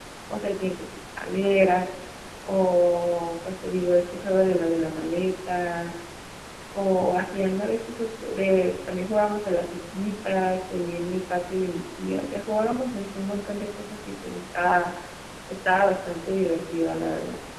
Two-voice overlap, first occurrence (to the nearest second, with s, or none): none